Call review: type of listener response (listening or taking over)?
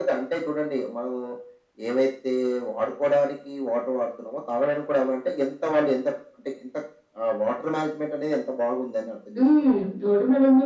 taking over